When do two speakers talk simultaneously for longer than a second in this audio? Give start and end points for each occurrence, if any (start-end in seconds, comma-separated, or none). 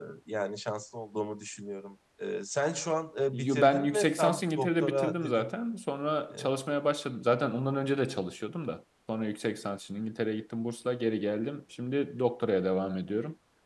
3.3-5.5